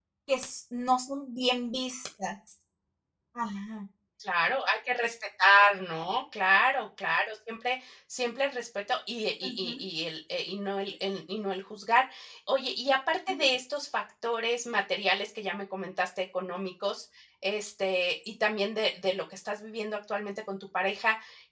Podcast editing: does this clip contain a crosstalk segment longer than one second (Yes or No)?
No